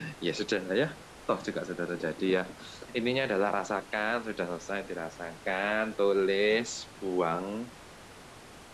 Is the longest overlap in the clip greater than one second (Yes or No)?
No